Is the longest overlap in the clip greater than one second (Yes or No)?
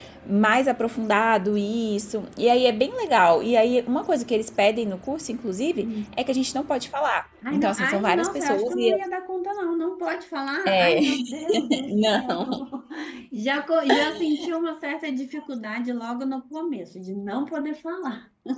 Yes